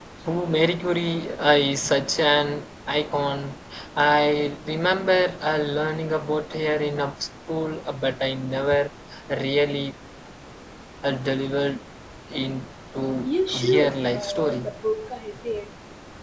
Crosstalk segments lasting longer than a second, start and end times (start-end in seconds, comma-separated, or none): 13.2-14.7